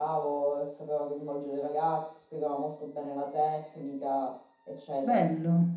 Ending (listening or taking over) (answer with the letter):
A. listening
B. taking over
B